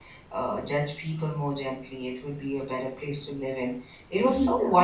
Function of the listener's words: listening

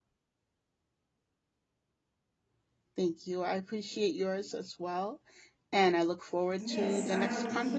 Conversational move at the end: taking over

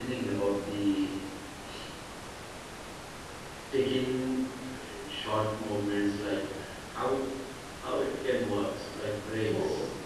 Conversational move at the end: taking over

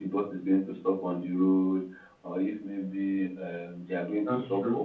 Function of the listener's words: listening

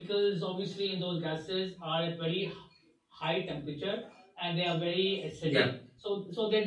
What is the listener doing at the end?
listening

